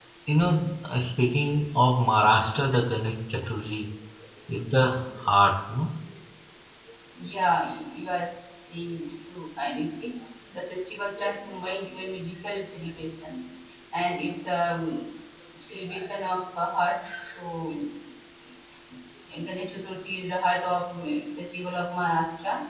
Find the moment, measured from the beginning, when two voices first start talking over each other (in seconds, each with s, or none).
none